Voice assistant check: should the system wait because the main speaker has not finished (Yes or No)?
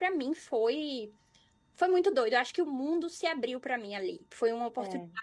Yes